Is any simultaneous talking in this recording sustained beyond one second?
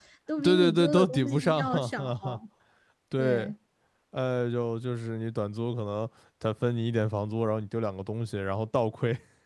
Yes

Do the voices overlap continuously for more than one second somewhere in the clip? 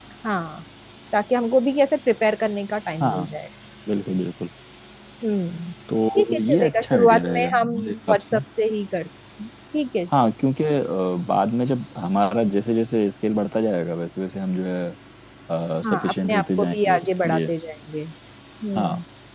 Yes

